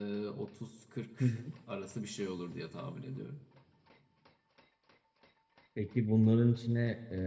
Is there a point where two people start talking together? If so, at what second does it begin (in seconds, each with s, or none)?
none